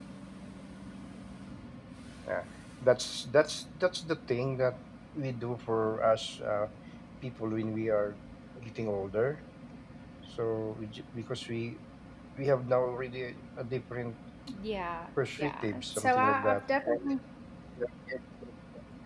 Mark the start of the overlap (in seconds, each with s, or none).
15.2 s